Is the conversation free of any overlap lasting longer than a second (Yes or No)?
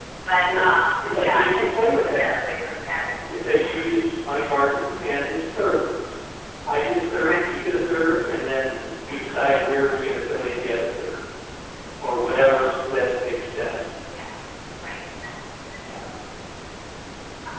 No